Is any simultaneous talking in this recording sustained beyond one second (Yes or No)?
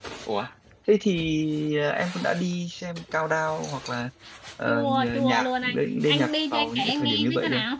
Yes